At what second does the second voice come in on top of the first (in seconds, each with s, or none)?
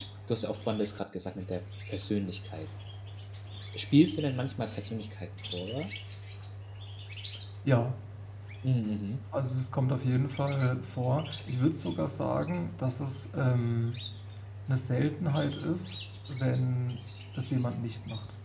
none